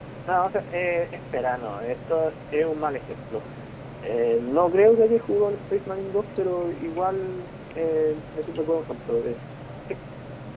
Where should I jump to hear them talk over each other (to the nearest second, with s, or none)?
none